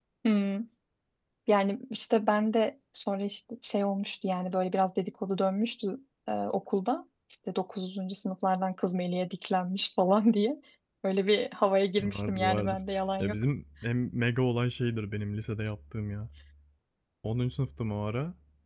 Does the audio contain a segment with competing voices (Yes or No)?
Yes